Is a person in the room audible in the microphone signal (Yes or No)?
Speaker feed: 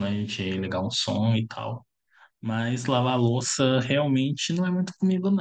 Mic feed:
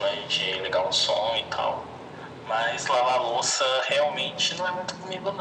No